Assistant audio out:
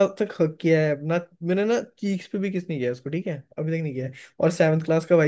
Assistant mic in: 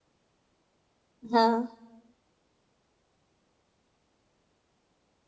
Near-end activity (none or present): present